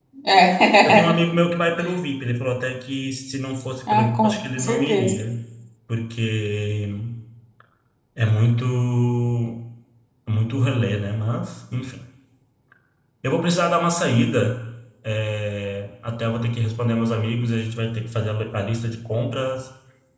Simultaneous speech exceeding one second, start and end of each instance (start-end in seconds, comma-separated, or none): 3.9-5.1